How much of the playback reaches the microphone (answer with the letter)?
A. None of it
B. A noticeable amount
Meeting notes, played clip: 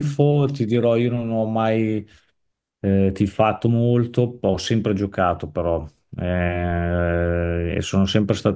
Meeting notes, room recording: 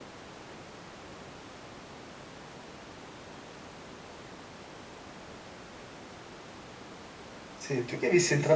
A